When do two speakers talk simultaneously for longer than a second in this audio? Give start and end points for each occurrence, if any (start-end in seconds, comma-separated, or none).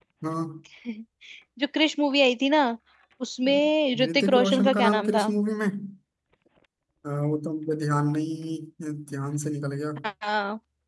4.0-5.3